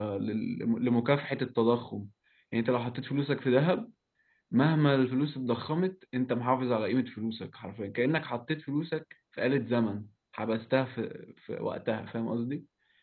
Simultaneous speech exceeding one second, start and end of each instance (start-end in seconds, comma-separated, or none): none